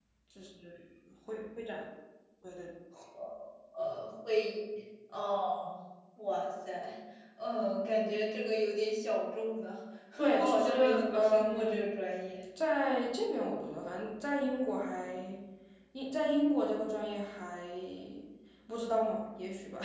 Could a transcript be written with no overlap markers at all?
No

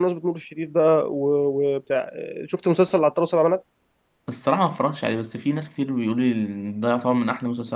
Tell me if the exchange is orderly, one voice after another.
Yes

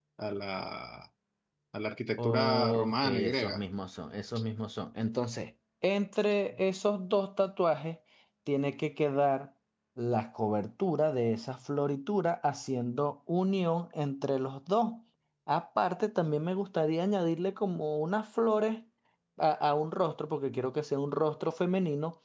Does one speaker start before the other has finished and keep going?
Yes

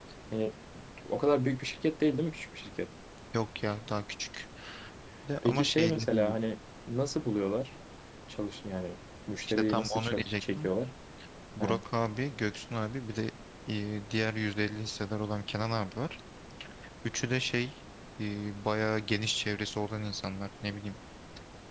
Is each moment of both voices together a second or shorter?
No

